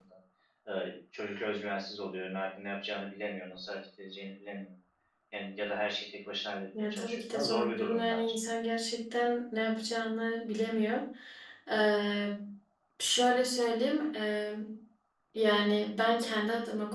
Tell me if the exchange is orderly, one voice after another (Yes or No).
No